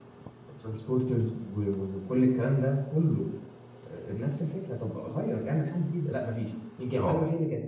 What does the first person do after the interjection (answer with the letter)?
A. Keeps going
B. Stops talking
A